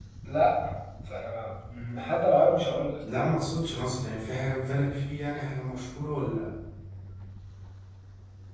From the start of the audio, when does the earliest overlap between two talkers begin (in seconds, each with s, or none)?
none